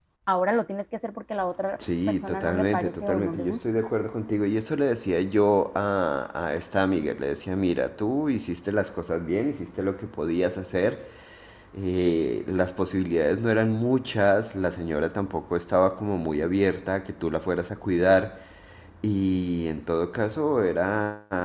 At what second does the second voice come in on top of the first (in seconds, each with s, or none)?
2.1 s